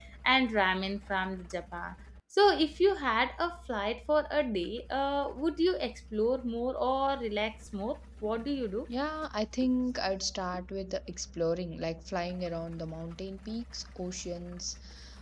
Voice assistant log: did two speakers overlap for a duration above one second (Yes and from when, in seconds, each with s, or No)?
No